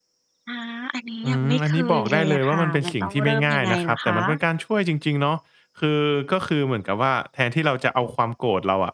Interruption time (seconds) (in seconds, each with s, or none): 1.2 s